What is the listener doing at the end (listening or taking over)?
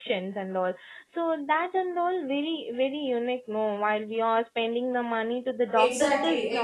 taking over